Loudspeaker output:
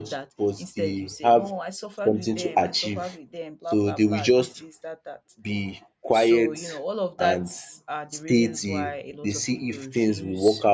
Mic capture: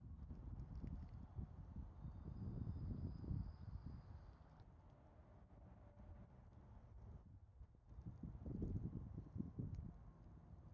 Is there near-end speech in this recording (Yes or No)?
No